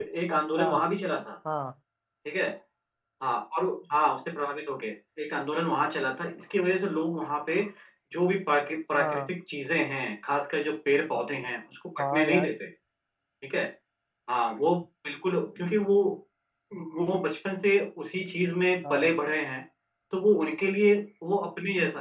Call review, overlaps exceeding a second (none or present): none